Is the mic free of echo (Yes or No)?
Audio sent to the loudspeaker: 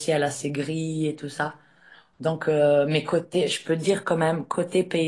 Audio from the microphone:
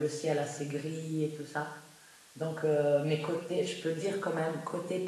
No